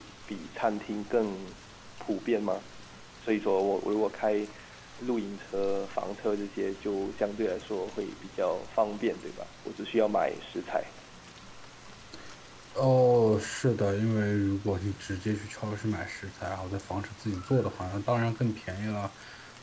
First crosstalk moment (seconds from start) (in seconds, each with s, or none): none